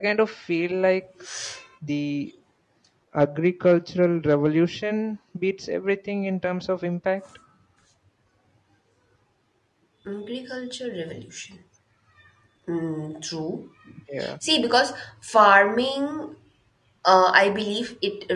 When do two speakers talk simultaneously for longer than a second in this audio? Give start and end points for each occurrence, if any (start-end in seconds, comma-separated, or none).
none